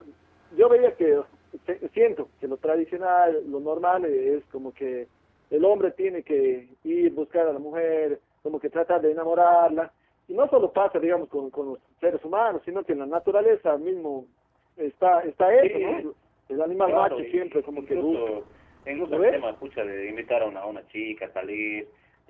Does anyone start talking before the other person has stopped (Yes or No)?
Yes